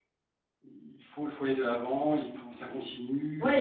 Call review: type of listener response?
taking over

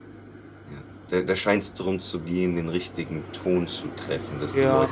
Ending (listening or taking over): taking over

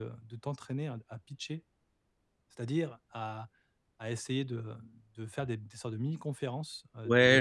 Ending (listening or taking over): taking over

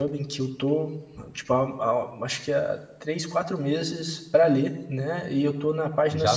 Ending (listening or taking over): taking over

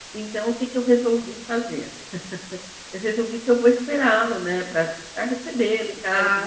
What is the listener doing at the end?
listening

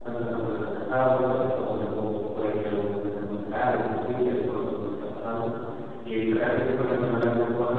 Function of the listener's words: listening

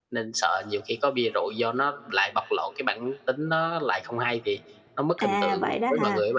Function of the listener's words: taking over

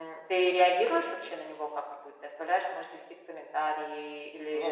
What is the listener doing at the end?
taking over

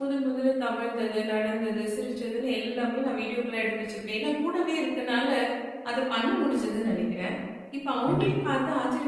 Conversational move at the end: listening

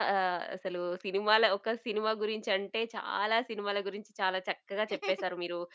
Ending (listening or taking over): listening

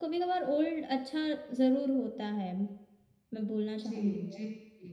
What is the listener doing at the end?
taking over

